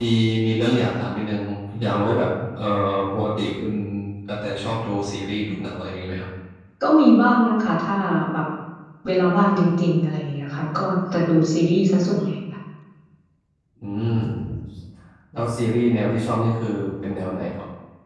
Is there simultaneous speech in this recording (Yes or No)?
No